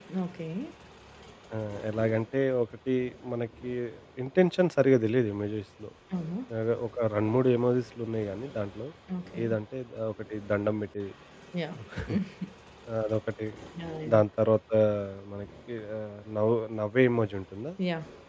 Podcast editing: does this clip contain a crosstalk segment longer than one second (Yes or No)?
No